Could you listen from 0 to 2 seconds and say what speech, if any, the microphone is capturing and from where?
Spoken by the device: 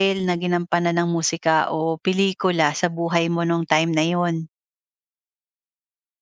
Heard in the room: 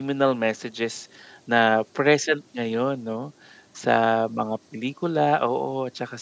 user only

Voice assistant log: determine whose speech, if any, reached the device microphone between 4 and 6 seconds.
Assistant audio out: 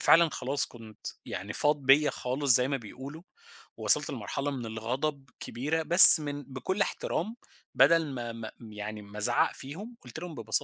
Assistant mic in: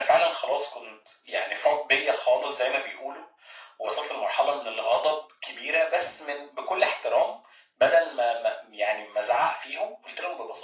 echo only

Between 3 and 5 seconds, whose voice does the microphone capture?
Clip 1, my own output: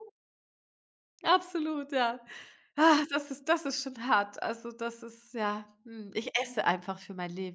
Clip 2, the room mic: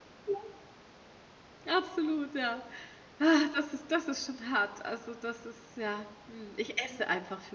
echo only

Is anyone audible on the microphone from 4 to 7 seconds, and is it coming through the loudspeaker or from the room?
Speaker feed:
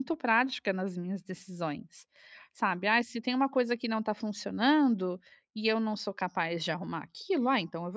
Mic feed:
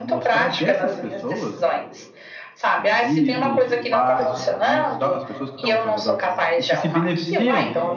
both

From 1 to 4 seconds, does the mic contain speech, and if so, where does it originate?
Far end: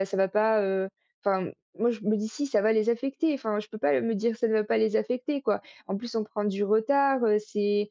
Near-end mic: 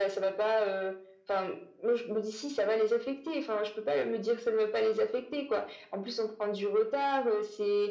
echo only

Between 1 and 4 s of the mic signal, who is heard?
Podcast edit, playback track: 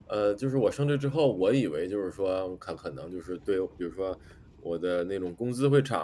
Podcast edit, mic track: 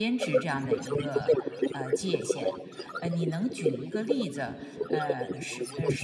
both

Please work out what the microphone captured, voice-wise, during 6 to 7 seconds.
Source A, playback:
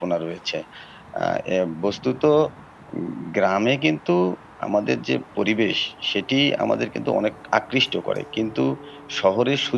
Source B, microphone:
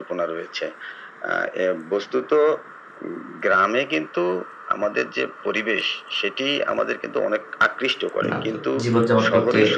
echo only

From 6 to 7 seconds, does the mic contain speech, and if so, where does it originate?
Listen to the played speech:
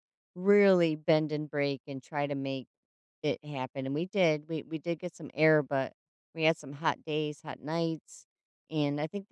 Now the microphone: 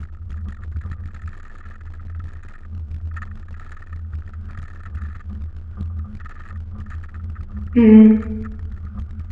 neither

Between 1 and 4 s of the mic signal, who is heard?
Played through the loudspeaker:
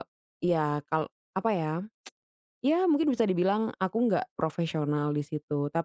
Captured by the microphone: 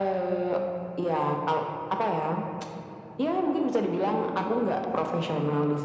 echo only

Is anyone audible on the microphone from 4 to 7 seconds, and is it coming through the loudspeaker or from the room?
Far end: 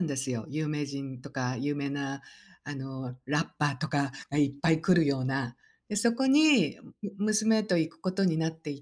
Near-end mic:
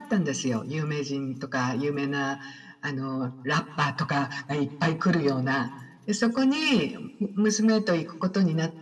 echo only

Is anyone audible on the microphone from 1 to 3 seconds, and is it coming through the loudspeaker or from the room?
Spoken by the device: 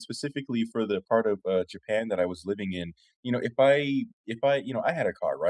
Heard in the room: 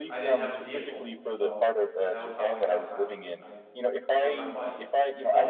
both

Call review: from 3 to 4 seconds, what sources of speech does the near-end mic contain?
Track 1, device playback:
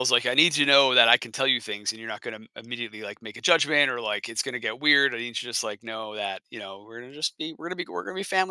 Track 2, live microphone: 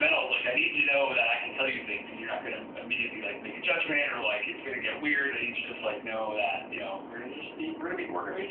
echo only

